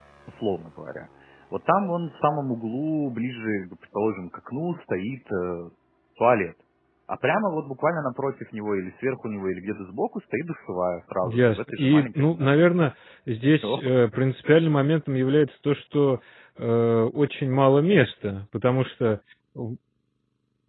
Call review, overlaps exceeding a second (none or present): present